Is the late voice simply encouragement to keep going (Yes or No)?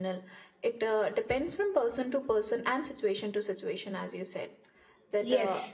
Yes